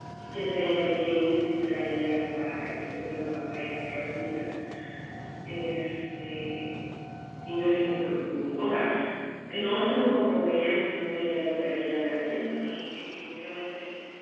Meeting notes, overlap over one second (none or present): none